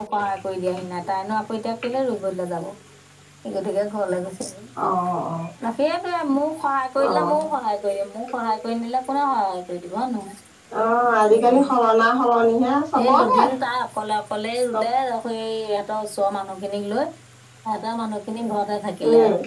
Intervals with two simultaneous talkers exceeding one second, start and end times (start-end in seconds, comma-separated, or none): none